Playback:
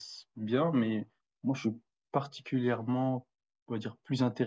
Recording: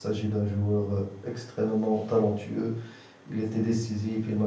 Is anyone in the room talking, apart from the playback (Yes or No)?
Yes